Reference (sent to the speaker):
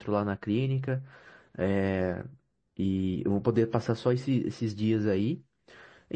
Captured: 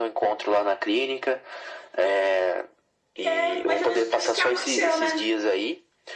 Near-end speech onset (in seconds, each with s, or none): 3.2 s